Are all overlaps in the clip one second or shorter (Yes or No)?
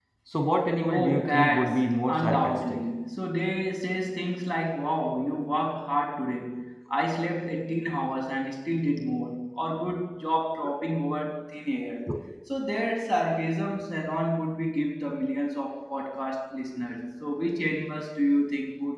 No